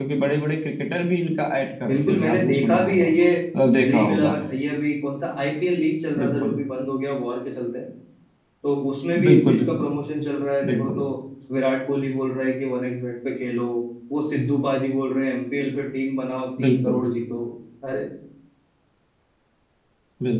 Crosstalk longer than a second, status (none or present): present